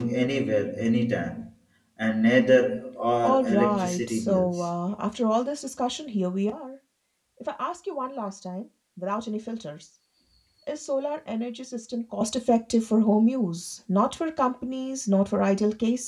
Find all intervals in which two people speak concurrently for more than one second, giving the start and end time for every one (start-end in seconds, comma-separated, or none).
3.2-4.6